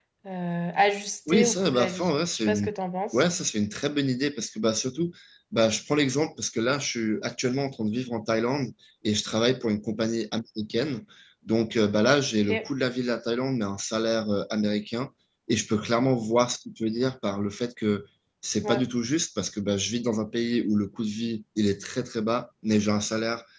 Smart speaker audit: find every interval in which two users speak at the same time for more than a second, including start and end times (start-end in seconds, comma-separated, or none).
1.3-2.7